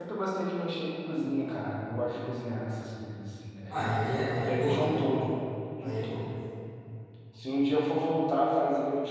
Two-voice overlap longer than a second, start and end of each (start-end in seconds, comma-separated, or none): 3.7-5.2